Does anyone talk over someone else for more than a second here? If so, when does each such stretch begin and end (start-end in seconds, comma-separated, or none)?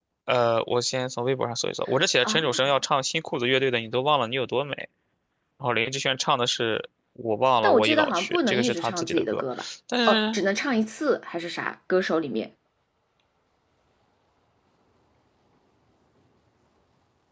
7.6-9.4